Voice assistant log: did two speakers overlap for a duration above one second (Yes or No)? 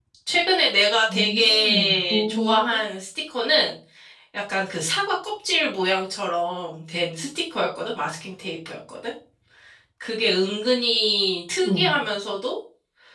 Yes